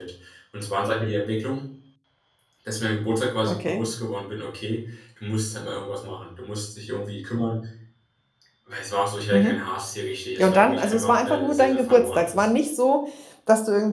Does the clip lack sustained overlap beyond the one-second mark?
No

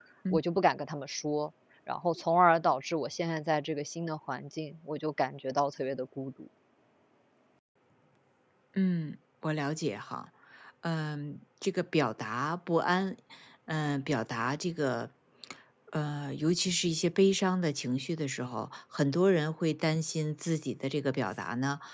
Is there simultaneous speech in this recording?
No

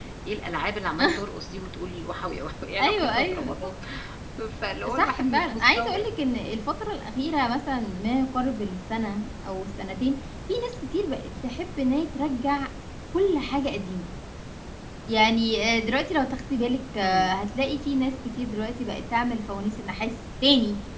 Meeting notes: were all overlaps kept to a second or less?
No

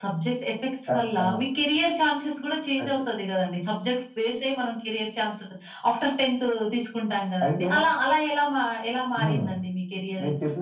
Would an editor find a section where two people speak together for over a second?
No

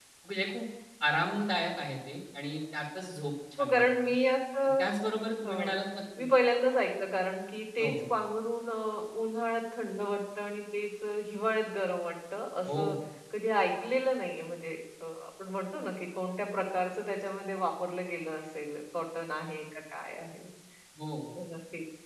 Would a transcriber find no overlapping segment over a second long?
Yes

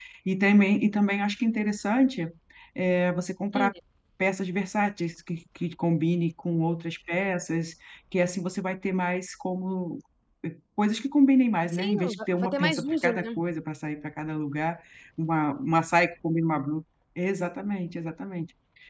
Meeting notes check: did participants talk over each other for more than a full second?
Yes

